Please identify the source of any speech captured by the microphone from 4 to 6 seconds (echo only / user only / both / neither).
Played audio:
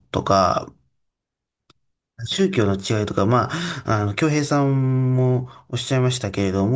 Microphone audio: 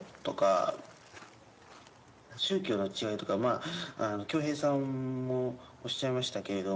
echo only